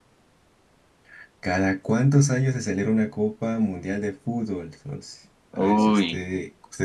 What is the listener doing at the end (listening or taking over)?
listening